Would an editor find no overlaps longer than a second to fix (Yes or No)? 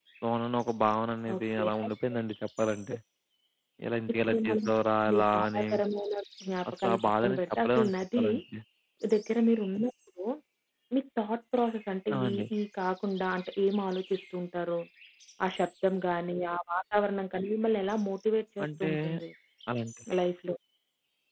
No